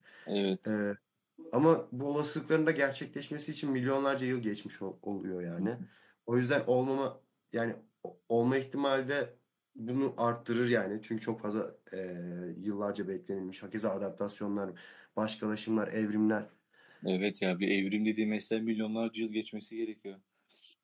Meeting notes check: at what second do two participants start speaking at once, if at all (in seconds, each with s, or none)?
none